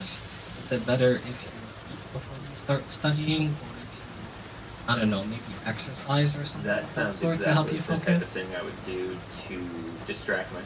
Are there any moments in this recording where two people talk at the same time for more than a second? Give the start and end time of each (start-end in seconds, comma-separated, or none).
6.5-8.4